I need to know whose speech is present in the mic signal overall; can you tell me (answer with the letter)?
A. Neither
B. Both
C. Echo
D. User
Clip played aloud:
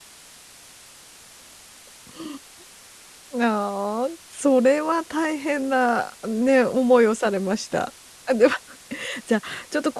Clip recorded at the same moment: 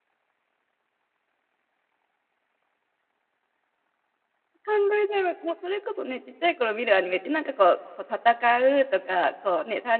D